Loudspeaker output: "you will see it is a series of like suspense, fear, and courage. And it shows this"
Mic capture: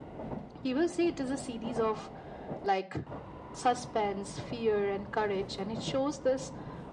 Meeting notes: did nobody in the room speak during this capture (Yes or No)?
Yes